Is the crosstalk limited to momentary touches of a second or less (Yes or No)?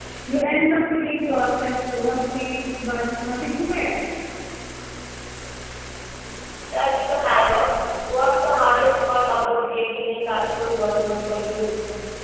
Yes